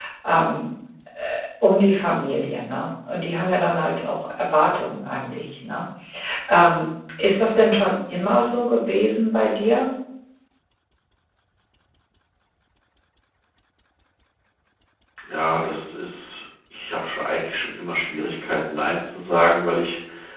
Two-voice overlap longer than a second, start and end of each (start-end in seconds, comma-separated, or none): none